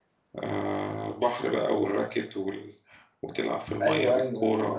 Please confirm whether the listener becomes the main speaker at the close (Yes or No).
Yes